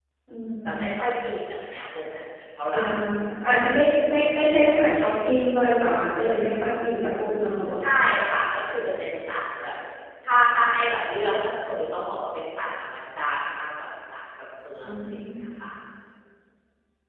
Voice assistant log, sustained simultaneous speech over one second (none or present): none